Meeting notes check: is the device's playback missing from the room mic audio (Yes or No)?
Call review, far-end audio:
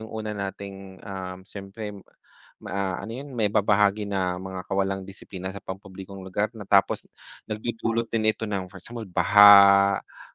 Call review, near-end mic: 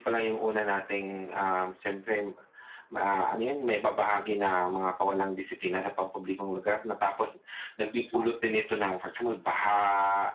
No